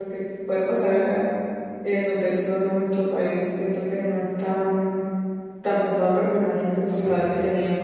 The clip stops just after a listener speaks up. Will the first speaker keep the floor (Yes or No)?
Yes